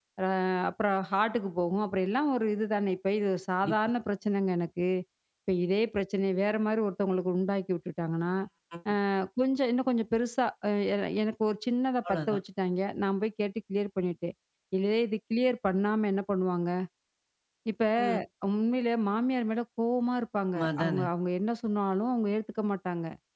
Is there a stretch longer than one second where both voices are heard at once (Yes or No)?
No